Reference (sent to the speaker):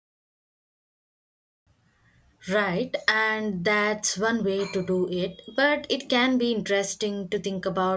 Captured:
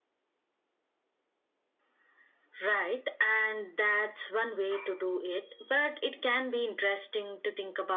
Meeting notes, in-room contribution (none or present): none